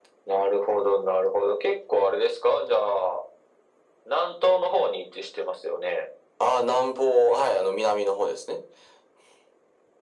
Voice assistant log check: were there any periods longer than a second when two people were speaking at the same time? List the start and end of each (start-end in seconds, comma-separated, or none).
none